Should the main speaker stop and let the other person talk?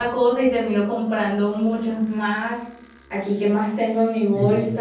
No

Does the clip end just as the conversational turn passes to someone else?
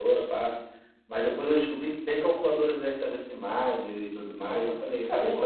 Yes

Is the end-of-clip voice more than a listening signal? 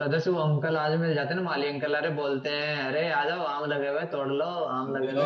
No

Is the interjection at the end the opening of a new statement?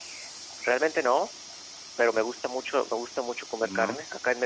No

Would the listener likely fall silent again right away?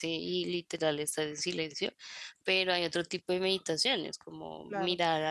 Yes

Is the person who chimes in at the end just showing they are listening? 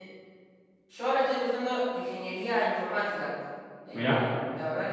Yes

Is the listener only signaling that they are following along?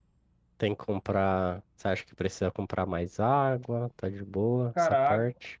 No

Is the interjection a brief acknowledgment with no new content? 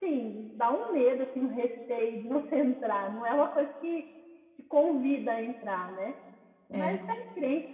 Yes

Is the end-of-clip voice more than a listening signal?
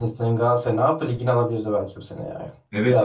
Yes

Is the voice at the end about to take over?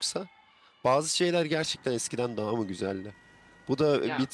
Yes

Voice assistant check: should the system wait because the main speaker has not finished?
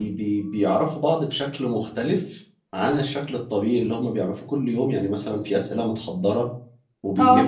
Yes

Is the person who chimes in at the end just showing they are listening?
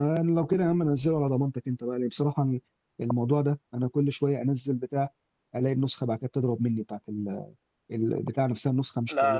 No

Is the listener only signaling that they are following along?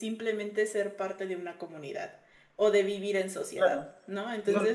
No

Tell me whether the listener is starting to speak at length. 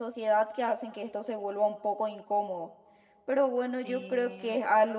No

